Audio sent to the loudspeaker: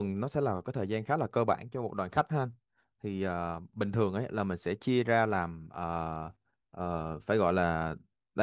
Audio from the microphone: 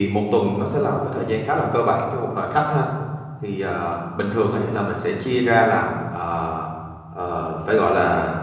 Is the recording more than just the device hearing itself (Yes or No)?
No